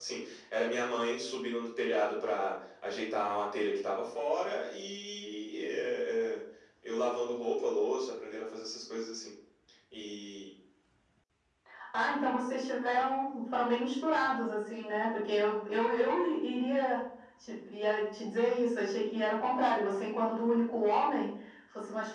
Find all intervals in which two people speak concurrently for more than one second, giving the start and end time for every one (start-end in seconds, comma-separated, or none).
none